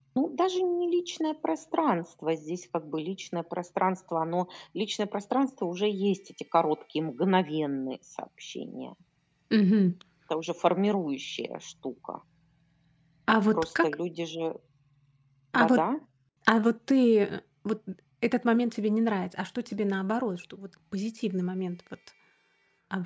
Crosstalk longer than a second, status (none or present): none